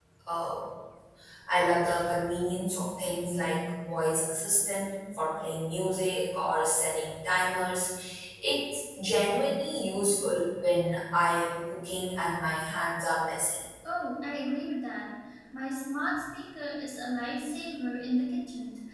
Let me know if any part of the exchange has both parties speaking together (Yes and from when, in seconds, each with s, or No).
No